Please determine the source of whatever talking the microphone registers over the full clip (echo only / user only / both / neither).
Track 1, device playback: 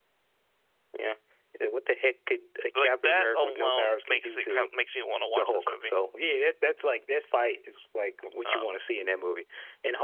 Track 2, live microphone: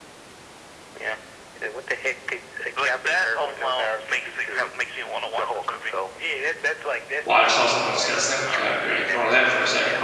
both